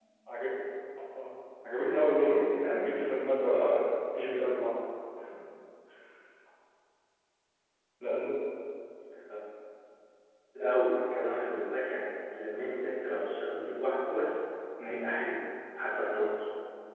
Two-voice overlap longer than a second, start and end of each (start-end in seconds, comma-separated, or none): 1.8-3.1